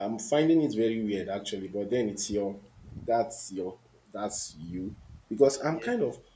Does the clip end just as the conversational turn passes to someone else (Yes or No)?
No